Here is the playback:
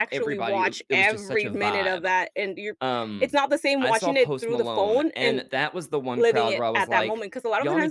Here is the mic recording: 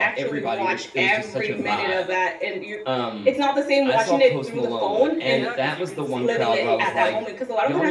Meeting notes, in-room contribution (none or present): present